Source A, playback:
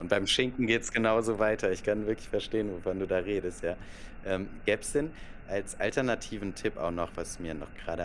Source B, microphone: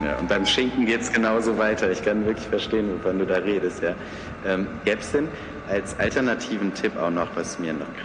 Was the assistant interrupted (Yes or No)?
No